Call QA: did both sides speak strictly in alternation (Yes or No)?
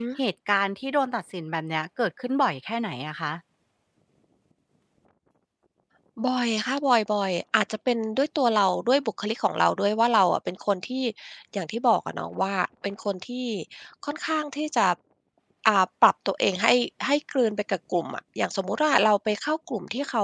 Yes